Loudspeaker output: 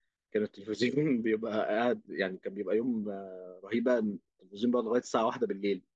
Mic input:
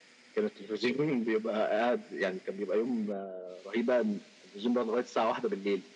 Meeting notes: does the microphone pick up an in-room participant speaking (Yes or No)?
No